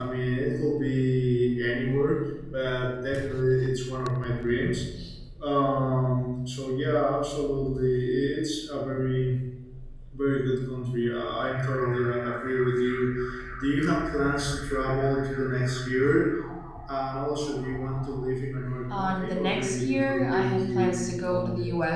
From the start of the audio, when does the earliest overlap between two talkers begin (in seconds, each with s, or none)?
18.9 s